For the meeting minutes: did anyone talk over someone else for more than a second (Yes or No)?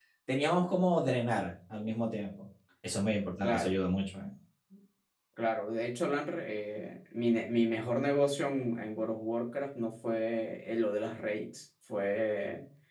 No